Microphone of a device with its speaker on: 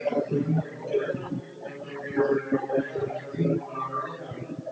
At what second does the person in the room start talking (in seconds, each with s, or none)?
none